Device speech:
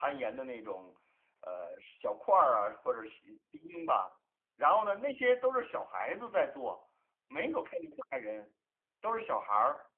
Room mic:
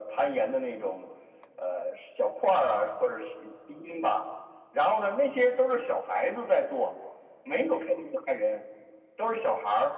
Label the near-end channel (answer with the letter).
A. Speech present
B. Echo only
B